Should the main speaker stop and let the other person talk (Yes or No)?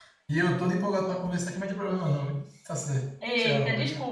Yes